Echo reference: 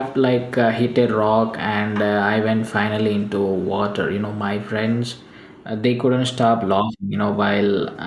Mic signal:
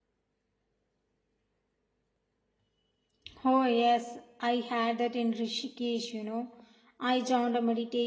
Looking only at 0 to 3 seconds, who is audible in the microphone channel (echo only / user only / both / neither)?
neither